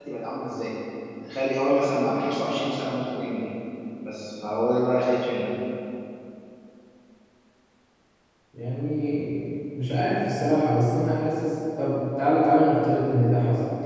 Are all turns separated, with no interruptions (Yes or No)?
Yes